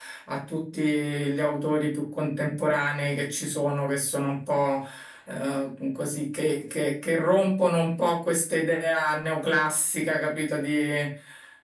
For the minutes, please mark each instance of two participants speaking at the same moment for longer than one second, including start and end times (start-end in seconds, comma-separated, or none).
none